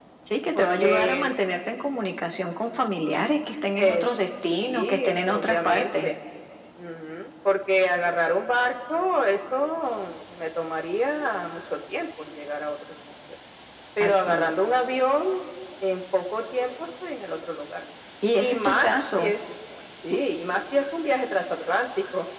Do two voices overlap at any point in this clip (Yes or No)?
Yes